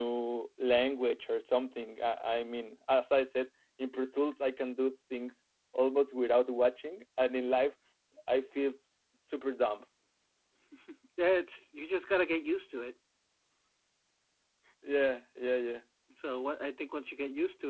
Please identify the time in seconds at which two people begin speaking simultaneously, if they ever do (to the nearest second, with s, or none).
none